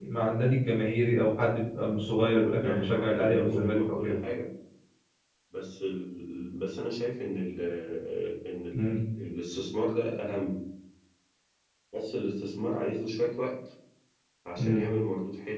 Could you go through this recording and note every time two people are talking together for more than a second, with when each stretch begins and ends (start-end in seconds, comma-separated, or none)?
1.6-4.2